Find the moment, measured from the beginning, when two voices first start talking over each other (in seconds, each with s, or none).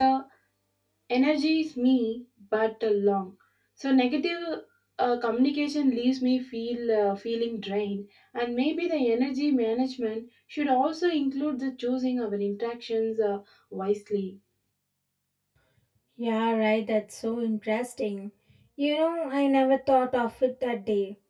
none